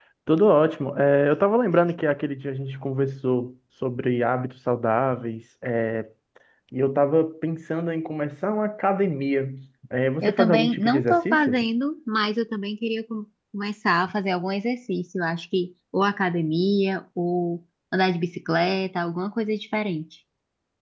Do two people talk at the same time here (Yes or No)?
Yes